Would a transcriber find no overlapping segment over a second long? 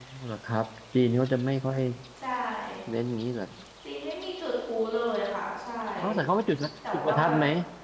Yes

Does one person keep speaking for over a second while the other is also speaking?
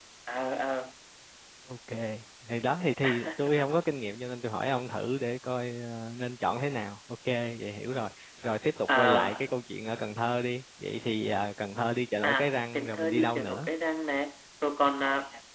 Yes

